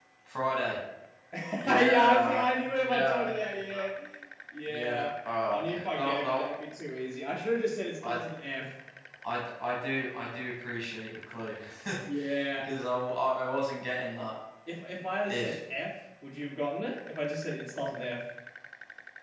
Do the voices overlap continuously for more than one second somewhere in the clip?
Yes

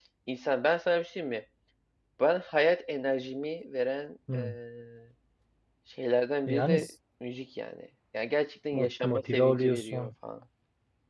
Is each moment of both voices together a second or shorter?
No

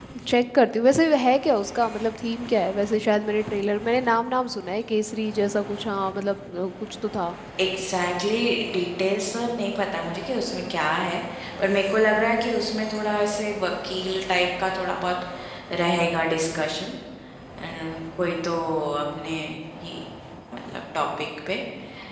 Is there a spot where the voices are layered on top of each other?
No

